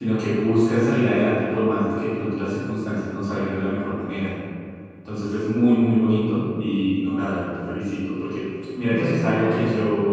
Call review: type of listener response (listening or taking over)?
listening